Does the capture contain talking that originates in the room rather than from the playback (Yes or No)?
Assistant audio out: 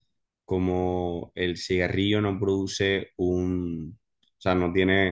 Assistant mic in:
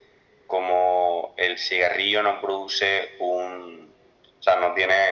No